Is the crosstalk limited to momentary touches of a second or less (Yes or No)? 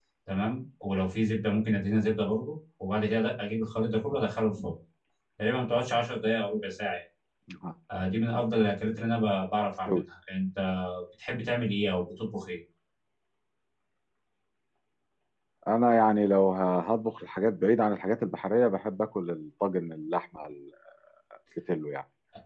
Yes